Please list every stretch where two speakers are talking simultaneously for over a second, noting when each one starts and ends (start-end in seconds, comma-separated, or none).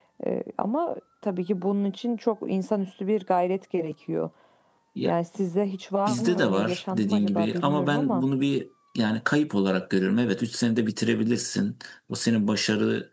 6.1-8.2